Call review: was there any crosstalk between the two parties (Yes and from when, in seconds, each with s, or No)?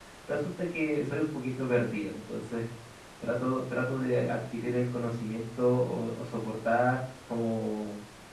No